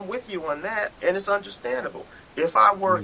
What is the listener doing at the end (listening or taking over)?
listening